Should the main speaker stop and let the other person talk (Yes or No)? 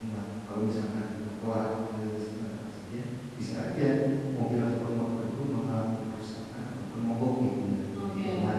No